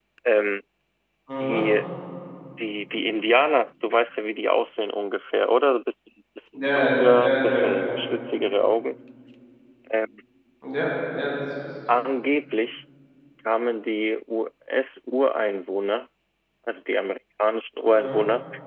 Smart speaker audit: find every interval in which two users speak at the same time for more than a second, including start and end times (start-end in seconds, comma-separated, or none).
6.5-7.8